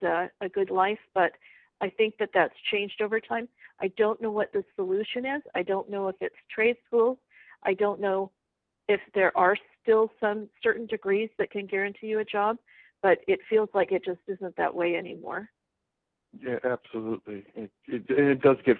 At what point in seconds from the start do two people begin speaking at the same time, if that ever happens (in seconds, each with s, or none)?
none